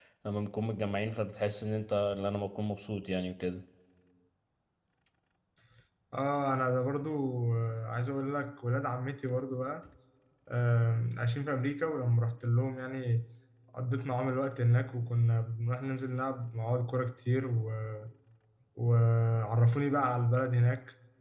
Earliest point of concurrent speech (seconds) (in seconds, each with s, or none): none